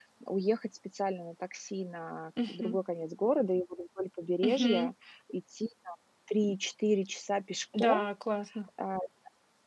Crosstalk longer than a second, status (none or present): none